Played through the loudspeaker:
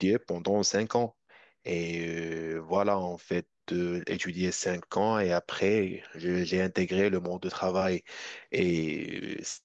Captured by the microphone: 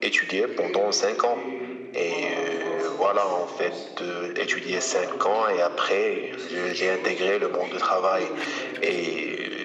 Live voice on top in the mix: No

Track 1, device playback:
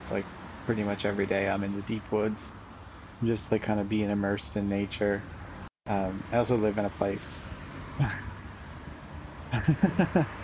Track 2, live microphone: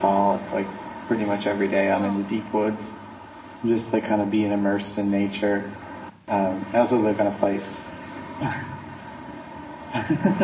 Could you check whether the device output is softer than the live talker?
No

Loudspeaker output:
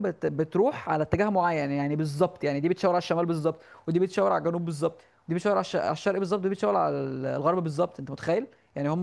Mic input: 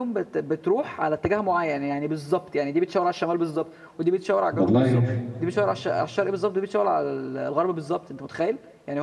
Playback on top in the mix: No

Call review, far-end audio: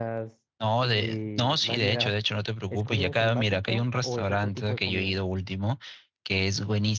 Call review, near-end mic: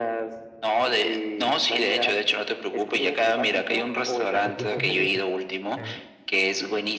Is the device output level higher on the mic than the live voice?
Yes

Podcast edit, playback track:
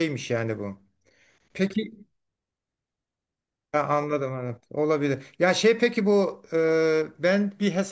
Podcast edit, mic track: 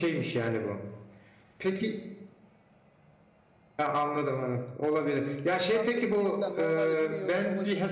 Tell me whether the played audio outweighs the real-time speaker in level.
Yes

